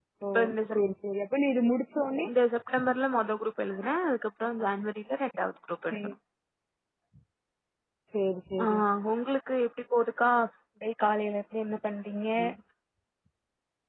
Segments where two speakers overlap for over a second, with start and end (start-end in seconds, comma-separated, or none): none